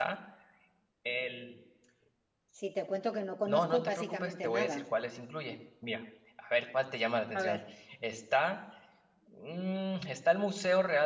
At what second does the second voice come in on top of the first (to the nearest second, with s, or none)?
3 s